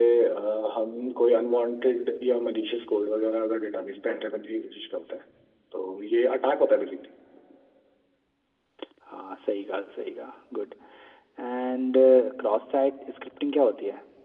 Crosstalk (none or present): none